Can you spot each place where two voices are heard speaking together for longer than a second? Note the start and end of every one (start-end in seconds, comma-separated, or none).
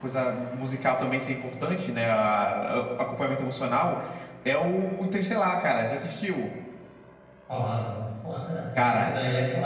none